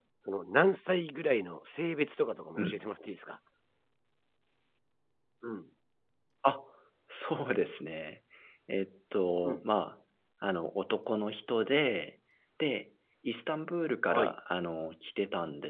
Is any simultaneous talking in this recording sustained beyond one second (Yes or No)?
No